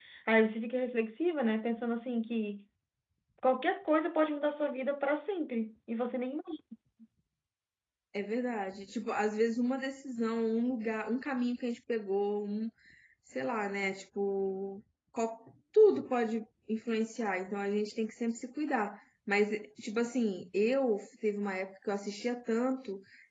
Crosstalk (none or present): none